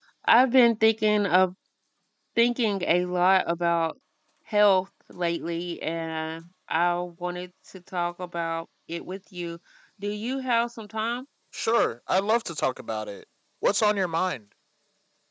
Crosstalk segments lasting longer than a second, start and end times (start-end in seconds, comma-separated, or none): none